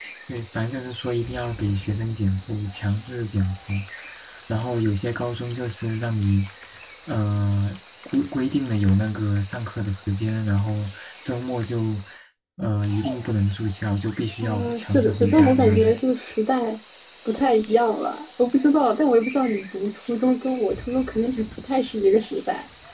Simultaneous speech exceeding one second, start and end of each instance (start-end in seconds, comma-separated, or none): 14.4-16.0